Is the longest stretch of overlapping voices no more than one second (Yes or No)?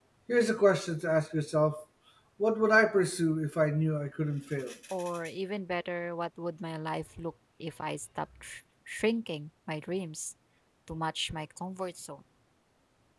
Yes